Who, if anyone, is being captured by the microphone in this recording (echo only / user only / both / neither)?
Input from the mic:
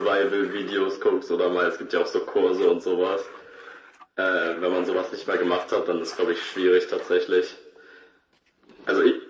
echo only